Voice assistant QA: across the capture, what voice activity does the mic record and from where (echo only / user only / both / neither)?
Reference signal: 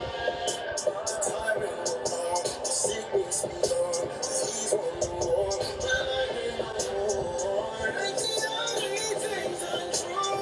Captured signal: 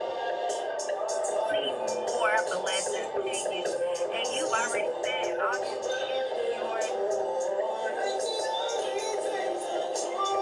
both